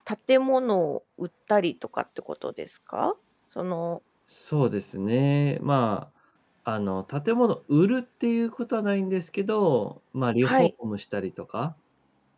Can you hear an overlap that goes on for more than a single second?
No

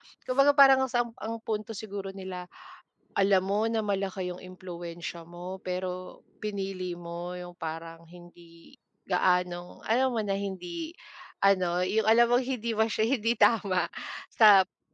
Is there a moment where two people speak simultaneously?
No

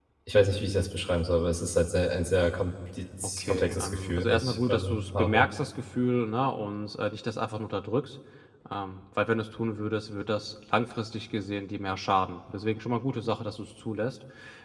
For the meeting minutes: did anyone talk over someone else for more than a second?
Yes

